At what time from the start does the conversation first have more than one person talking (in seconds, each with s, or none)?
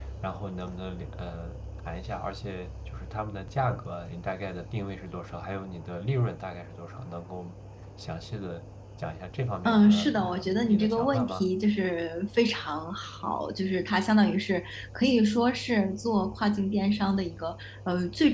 9.7 s